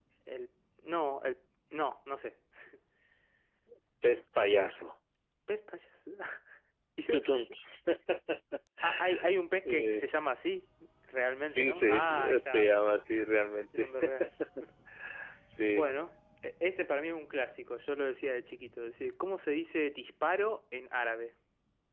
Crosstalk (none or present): present